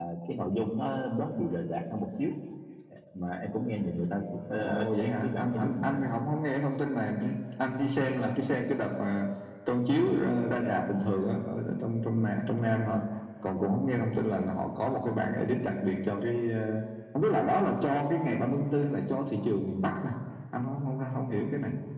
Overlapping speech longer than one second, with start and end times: 4.5-6.0

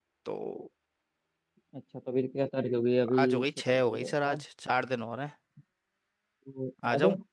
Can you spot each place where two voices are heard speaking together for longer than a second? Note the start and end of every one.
3.2-4.4

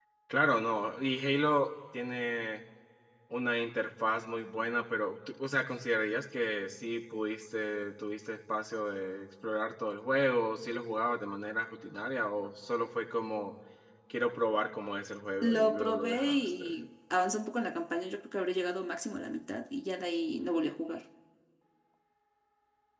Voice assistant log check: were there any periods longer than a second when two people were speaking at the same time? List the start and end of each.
15.4-16.6

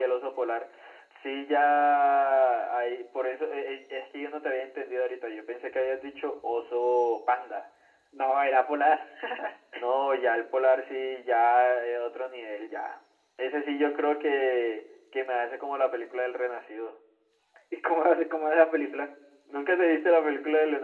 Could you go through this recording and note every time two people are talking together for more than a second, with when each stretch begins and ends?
none

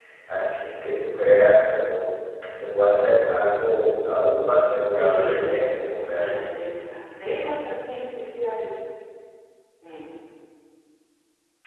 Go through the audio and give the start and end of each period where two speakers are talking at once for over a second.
5.0-6.5

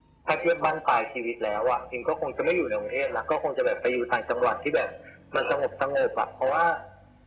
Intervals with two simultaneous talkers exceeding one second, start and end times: none

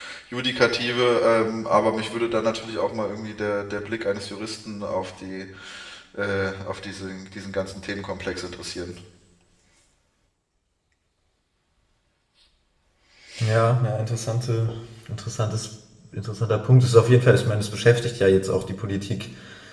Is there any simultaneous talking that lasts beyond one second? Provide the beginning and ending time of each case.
none

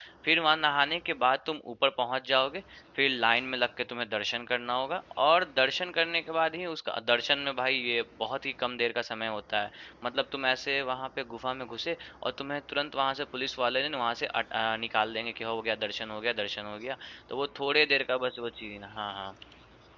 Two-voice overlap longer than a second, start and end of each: none

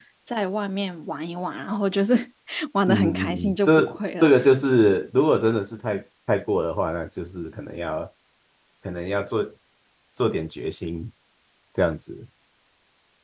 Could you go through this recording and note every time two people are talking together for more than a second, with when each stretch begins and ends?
2.9-4.3

